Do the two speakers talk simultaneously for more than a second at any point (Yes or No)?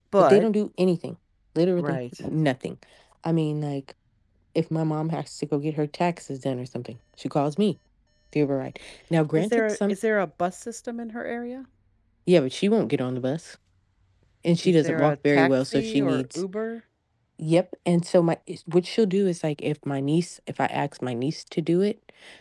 Yes